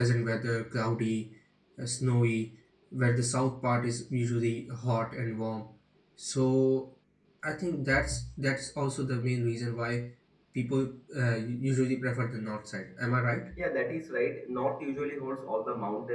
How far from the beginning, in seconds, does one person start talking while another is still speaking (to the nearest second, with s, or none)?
none